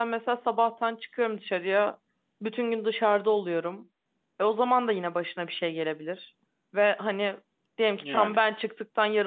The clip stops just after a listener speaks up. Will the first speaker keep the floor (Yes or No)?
Yes